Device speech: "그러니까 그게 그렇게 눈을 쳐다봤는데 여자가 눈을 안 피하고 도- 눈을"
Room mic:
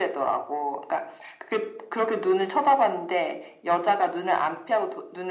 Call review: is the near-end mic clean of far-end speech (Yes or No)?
No